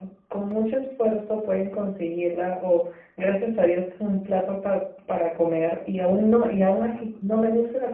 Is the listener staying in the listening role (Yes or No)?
Yes